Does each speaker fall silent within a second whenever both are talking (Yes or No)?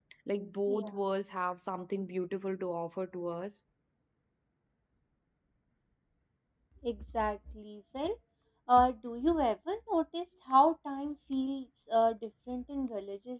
Yes